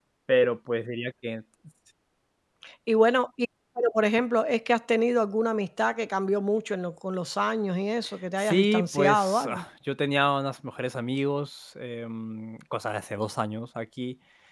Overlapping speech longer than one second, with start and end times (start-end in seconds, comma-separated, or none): 8.4-9.6